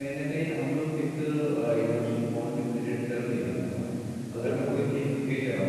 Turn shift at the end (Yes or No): No